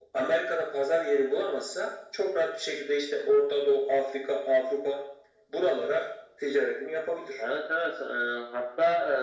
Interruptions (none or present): none